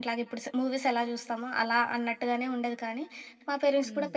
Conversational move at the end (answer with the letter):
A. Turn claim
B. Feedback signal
B